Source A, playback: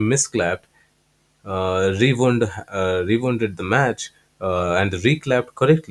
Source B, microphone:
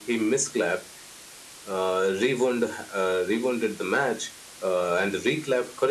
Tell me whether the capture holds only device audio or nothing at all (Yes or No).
Yes